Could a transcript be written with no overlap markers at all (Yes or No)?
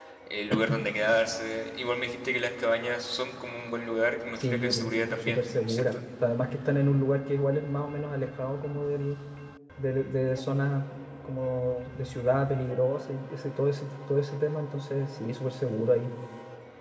No